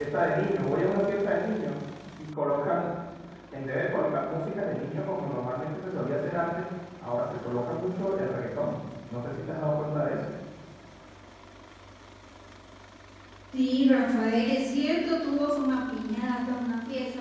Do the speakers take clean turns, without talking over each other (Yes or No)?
Yes